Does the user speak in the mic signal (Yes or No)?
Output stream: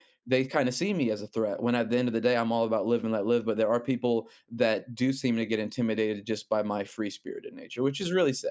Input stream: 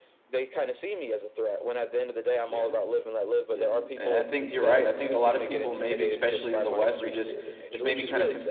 Yes